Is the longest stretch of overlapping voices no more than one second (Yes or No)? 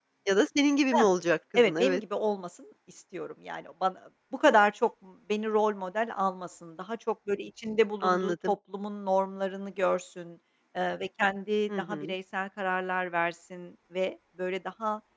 Yes